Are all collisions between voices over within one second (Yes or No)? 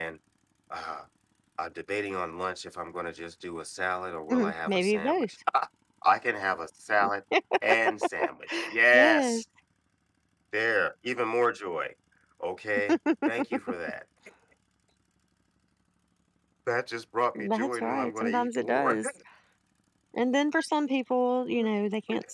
No